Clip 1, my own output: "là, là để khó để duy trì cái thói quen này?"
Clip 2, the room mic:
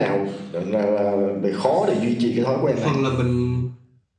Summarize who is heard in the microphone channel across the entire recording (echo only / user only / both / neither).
both